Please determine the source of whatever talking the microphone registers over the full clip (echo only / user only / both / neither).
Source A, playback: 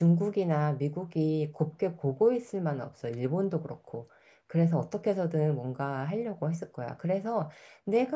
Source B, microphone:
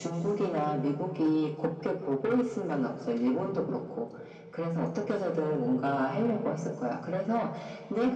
echo only